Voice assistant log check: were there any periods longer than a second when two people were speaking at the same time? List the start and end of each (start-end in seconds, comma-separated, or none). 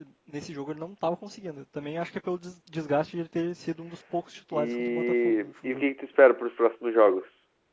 4.5-5.8